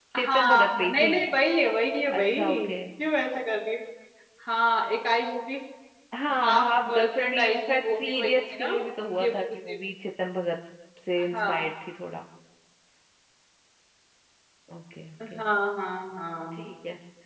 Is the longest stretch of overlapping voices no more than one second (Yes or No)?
No